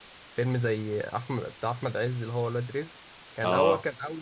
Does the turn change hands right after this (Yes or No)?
No